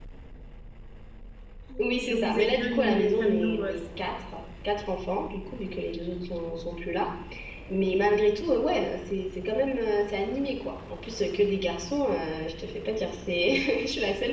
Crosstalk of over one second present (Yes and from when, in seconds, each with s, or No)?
Yes, from 2.1 s